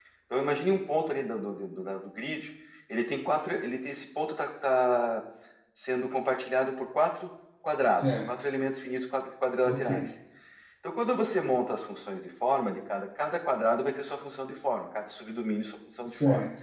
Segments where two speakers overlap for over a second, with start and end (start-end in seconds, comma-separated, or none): none